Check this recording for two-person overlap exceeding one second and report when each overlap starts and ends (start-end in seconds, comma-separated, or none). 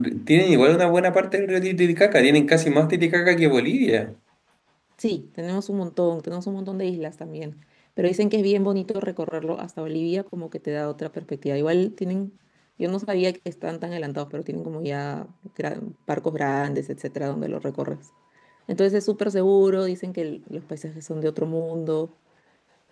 none